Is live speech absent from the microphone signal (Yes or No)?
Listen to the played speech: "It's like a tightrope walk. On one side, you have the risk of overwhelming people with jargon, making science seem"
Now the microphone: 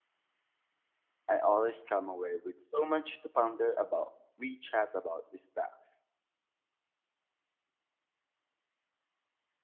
No